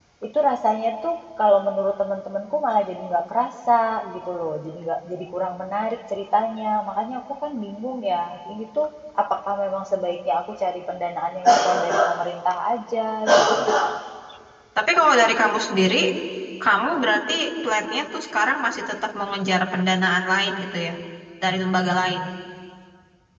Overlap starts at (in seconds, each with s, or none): none